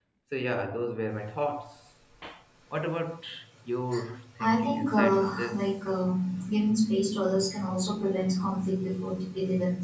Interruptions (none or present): present